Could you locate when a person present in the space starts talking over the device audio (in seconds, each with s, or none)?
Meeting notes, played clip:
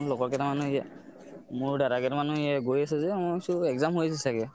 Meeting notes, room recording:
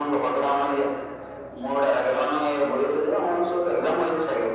none